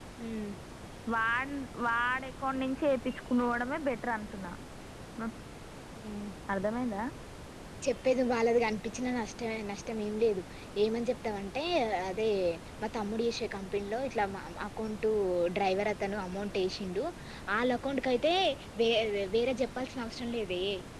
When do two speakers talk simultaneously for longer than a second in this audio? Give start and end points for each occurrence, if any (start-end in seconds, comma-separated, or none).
none